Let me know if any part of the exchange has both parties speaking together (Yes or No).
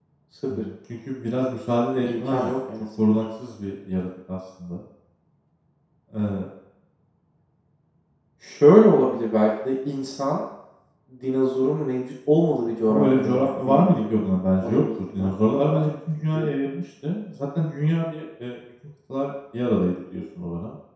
Yes